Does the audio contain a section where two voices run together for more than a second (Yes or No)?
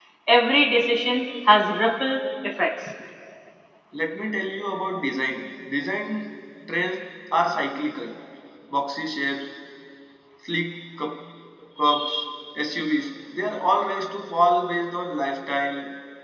No